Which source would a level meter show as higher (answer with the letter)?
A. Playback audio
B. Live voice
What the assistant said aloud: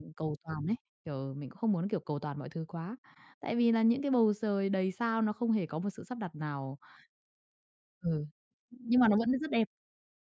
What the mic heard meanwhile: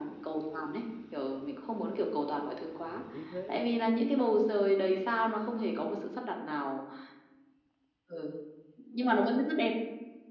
A